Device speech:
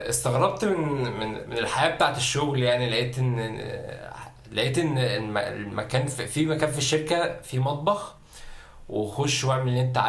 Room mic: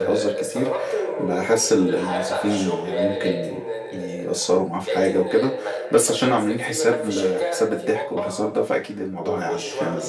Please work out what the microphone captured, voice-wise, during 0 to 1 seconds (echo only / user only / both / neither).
both